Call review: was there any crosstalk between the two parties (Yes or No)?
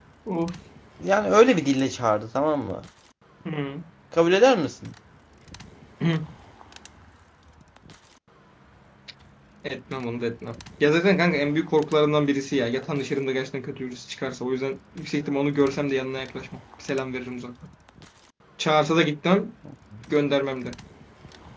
No